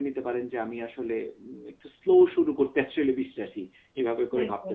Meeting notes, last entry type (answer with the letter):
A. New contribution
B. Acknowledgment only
A